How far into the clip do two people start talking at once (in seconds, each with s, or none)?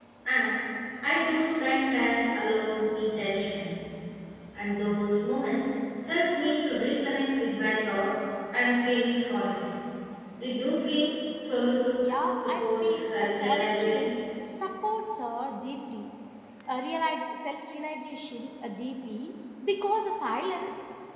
12.0 s